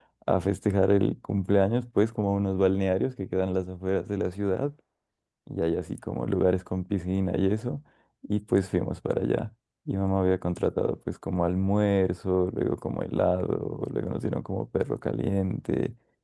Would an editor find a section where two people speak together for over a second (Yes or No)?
No